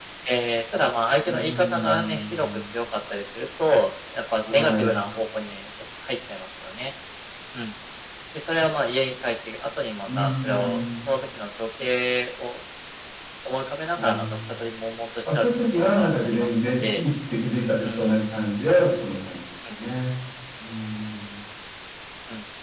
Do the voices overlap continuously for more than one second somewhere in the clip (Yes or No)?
Yes